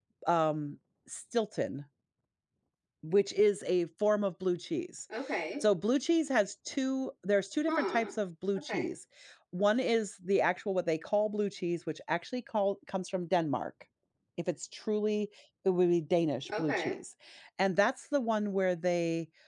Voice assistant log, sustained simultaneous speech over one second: none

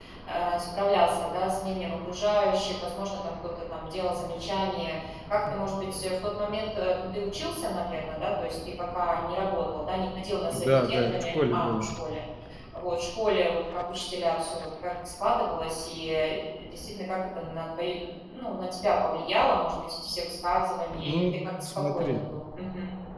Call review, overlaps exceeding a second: present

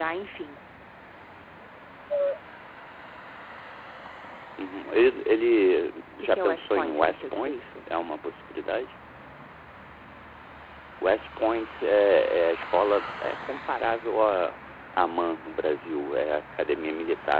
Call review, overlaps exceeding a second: present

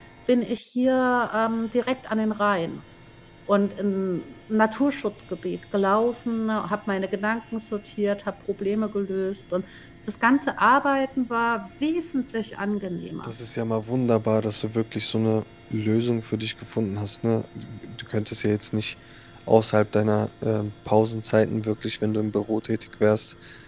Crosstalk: none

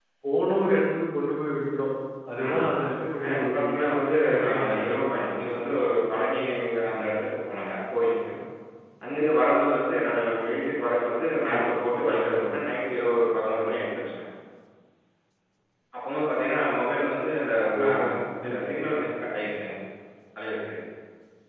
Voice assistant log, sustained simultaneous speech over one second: present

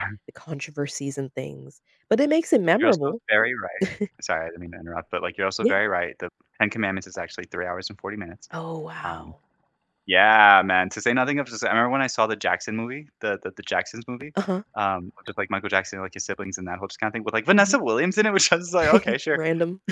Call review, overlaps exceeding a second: none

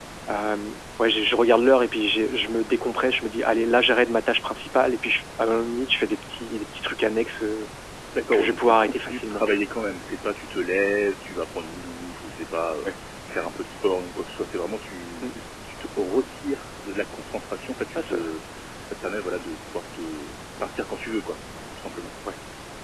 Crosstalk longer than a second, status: present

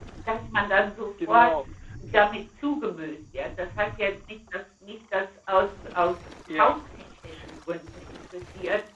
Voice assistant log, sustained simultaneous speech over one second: none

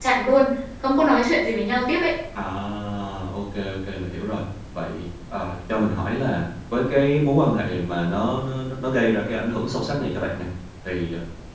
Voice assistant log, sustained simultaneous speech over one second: none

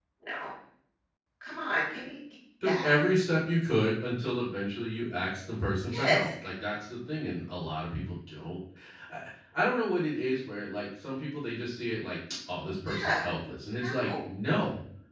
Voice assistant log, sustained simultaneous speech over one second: none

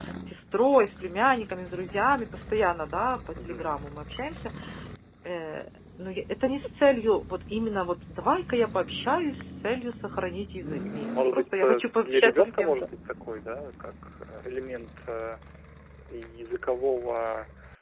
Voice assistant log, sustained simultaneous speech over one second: present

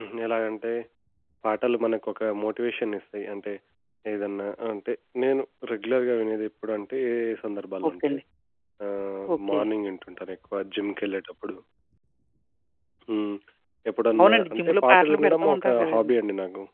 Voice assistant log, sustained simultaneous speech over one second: present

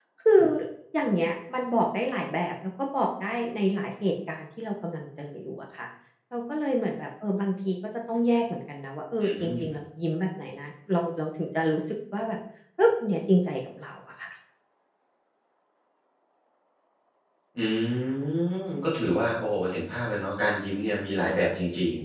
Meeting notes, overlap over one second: none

